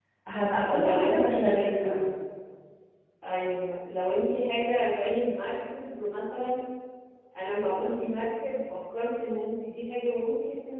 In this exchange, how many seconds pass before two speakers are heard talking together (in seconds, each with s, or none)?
0.7 s